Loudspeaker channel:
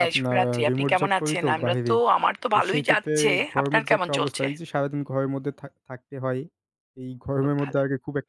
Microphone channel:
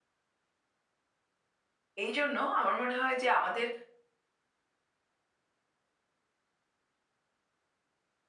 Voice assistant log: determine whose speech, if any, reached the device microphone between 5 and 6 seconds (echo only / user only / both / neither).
neither